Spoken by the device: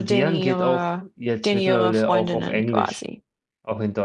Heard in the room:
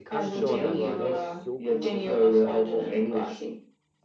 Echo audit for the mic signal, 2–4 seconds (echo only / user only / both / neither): both